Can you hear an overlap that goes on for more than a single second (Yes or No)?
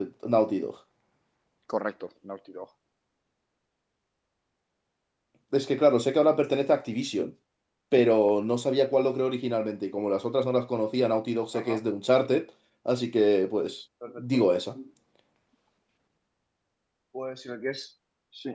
No